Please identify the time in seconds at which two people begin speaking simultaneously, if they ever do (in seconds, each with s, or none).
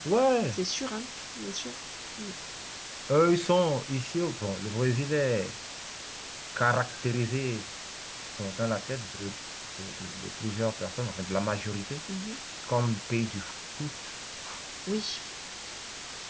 none